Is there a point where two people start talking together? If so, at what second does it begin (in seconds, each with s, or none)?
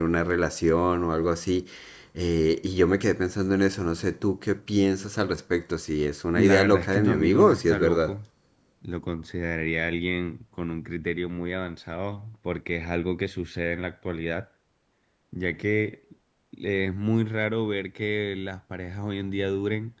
6.3 s